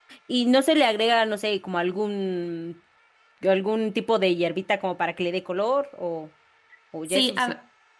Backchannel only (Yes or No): No